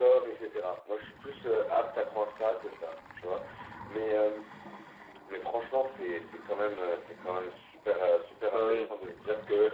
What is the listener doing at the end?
listening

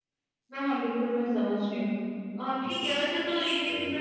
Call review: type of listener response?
listening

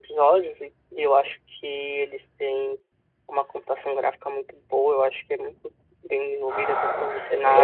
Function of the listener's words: taking over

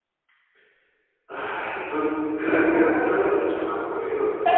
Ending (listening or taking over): listening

